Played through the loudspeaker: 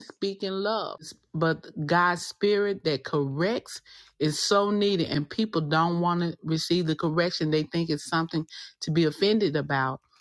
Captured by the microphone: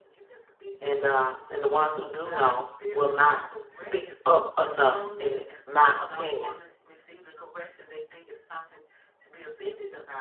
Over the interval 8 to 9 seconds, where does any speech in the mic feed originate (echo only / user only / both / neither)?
echo only